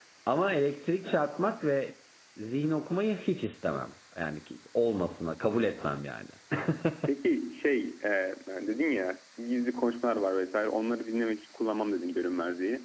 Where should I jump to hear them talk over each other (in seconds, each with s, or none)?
none